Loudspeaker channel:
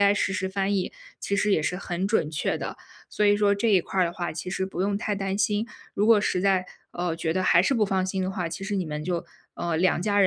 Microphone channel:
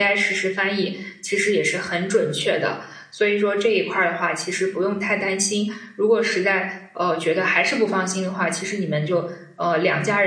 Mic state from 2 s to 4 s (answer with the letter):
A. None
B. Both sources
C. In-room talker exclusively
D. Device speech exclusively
D